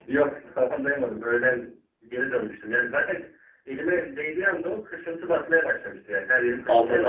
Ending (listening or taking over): taking over